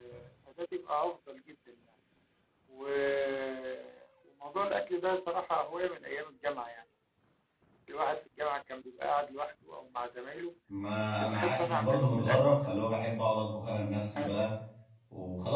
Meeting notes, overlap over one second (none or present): present